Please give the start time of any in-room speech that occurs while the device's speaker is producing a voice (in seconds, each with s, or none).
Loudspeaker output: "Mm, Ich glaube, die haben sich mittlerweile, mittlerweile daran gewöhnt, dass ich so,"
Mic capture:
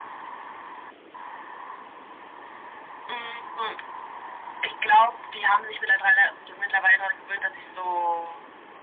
none